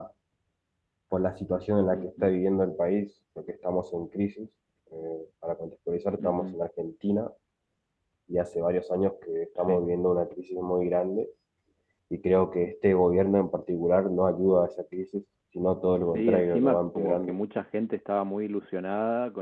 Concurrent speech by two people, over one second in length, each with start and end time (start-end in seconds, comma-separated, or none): 16.0-17.3